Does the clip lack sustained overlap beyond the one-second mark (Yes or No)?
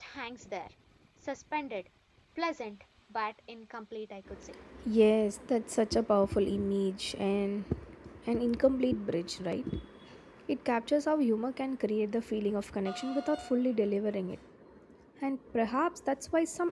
Yes